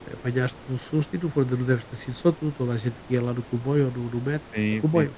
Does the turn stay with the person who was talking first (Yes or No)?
No